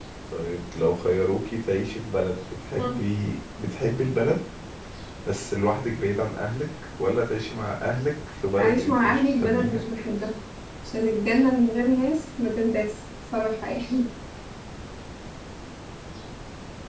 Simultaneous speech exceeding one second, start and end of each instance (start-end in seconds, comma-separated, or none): 8.6-9.8